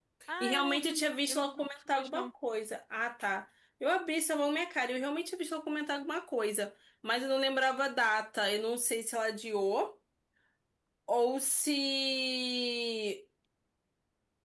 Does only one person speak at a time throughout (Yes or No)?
No